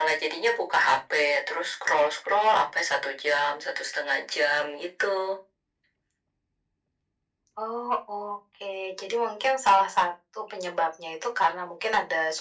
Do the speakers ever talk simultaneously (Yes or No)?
No